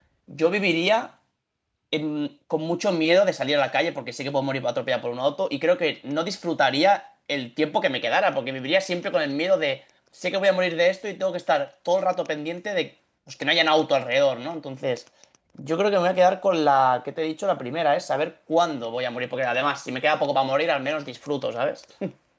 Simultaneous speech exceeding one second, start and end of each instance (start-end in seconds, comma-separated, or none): none